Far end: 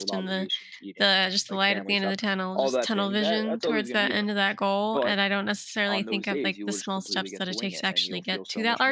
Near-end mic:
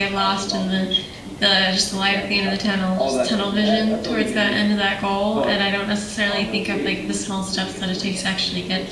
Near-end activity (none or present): none